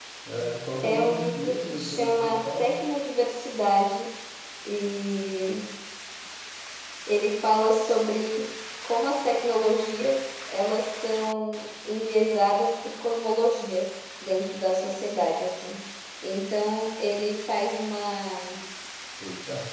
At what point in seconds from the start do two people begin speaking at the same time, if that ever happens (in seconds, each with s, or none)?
0.8 s